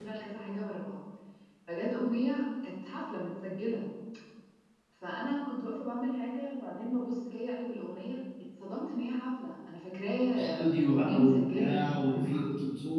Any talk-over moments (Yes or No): Yes